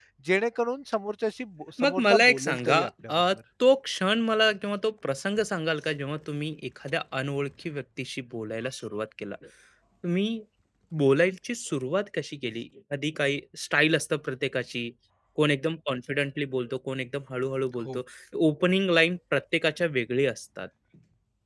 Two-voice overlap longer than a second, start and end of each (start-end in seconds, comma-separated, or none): 1.8-3.2